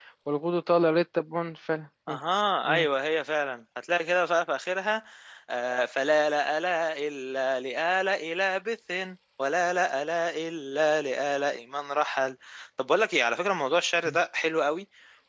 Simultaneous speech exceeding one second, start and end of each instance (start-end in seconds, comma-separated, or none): none